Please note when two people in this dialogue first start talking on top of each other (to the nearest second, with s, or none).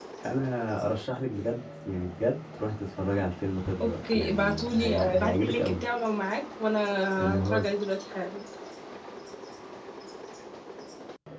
4 s